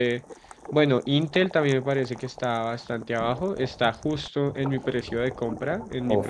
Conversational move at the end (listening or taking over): taking over